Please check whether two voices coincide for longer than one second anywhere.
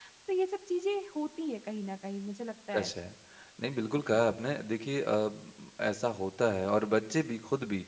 No

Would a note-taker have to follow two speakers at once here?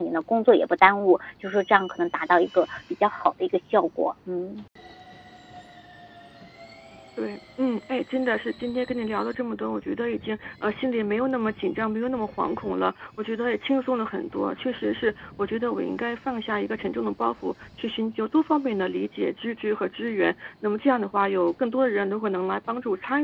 No

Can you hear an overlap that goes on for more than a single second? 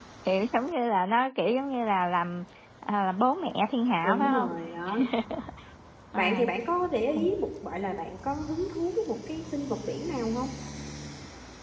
No

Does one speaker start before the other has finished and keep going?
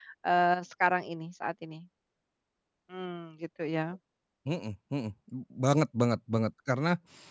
No

